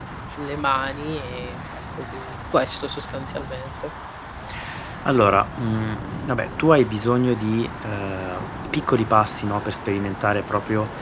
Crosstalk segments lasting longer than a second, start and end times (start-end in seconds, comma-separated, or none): none